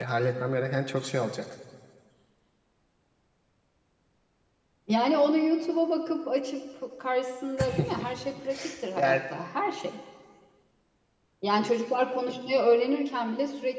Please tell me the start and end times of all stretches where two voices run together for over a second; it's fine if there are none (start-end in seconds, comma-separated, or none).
none